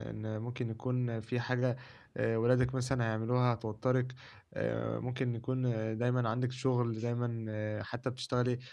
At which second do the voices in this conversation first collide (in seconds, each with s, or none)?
none